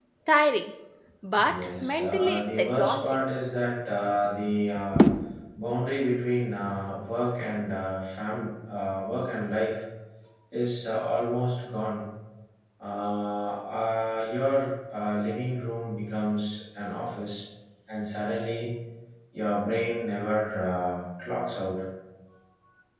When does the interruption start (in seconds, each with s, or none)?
1.3 s